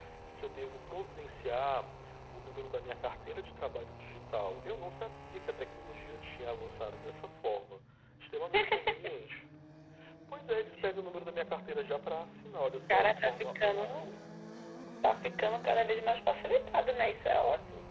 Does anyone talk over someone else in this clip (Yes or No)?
Yes